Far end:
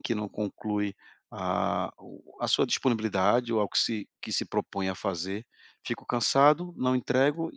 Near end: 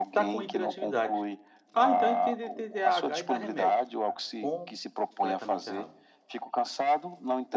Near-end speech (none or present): present